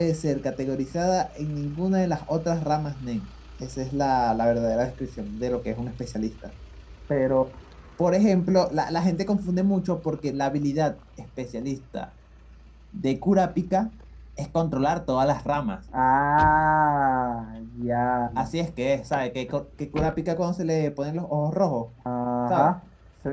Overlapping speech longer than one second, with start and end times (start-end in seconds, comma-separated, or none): none